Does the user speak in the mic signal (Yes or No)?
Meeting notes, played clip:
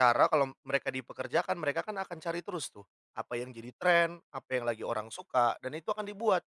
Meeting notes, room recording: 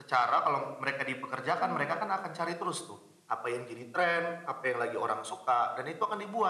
Yes